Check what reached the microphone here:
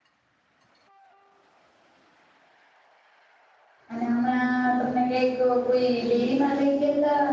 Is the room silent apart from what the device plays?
No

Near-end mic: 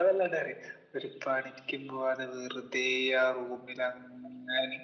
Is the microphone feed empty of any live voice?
Yes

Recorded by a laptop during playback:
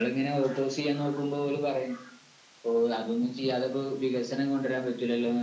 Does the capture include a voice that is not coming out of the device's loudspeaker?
No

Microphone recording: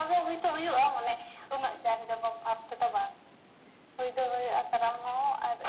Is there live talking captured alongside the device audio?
No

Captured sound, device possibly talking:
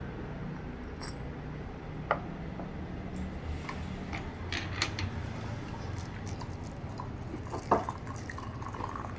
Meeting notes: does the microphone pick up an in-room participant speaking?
No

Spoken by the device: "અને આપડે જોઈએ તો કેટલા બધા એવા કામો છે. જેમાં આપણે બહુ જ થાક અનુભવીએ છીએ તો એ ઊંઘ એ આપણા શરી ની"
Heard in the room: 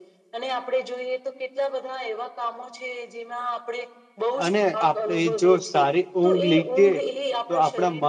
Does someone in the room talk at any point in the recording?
Yes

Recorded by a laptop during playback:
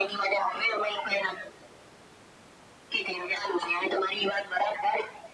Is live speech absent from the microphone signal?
Yes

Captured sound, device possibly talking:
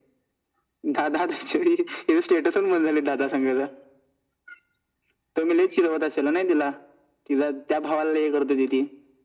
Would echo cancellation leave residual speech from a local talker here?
No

